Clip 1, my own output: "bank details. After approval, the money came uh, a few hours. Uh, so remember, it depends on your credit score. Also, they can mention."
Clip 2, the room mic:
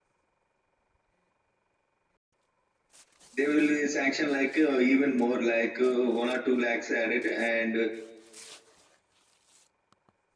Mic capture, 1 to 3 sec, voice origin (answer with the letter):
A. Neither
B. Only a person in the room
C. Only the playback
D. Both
A